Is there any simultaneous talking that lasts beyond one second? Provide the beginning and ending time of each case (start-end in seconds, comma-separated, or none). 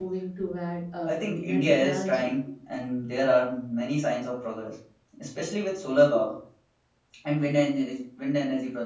1.1-2.3